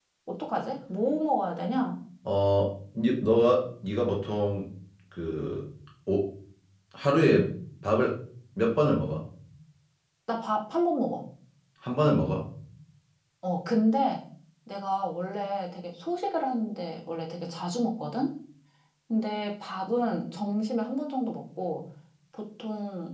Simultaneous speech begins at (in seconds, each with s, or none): none